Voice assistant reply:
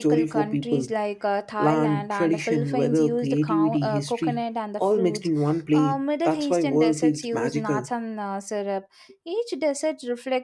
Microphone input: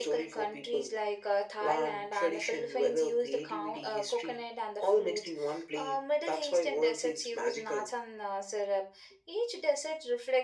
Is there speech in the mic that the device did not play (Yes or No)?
No